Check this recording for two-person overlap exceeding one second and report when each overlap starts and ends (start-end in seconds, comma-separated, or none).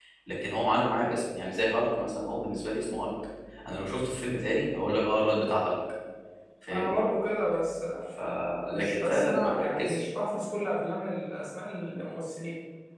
8.7-10.1